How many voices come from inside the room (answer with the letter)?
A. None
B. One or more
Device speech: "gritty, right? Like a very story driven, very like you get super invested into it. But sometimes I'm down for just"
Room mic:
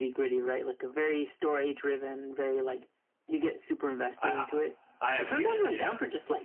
B